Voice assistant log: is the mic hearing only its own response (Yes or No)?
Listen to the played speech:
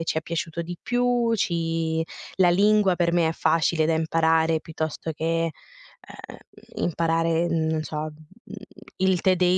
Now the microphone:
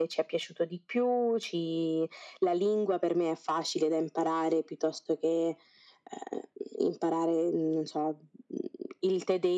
Yes